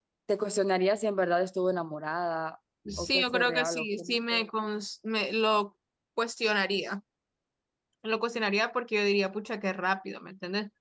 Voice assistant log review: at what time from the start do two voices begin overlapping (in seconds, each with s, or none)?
2.9 s